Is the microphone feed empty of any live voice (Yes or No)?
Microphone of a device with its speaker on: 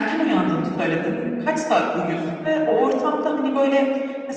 Yes